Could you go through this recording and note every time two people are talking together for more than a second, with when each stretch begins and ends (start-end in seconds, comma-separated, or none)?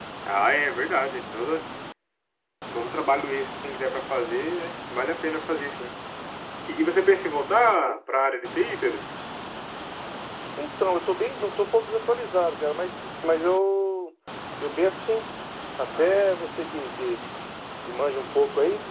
none